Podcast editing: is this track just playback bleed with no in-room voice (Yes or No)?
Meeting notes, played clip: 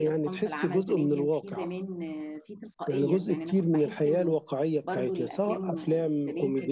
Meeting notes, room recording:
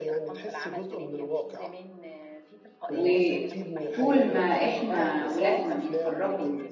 No